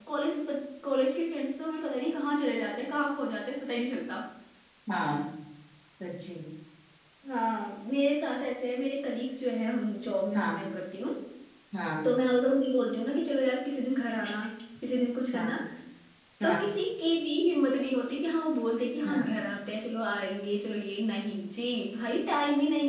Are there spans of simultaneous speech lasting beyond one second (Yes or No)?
No